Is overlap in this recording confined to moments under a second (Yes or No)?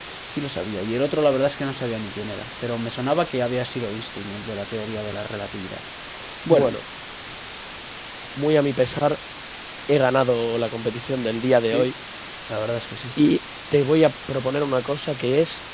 Yes